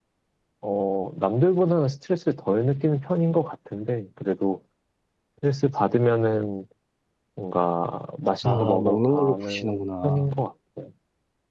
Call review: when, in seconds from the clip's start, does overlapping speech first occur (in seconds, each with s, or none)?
8.4 s